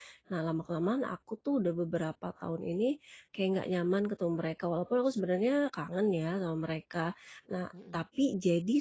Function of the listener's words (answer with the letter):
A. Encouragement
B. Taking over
A